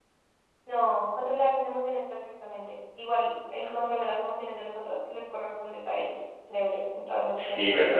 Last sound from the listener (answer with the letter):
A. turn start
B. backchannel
A